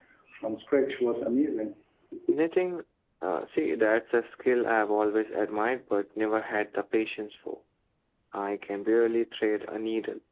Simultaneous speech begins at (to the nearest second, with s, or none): none